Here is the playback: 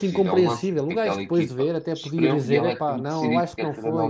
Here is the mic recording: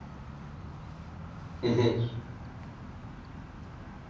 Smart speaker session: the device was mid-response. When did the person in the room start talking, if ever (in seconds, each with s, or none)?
1.6 s